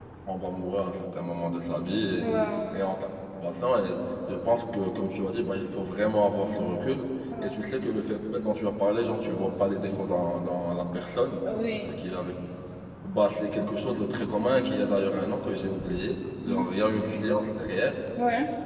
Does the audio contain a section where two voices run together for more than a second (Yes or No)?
No